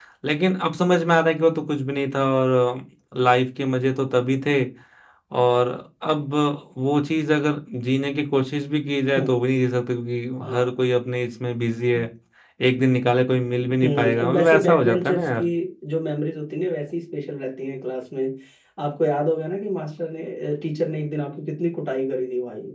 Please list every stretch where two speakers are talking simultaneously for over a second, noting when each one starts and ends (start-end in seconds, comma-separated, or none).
13.8-15.4